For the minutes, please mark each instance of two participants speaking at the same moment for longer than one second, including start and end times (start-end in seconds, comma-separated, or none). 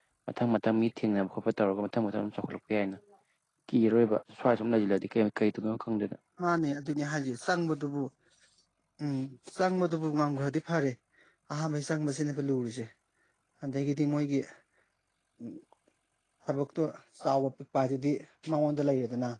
none